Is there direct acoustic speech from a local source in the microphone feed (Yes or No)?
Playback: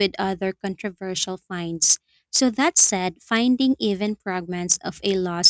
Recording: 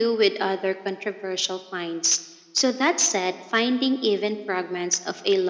No